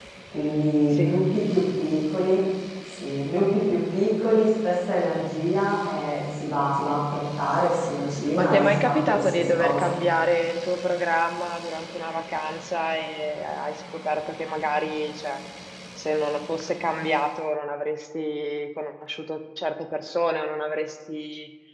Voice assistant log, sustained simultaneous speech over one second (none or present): present